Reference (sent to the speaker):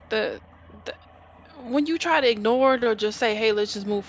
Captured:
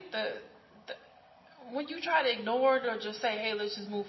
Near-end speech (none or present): none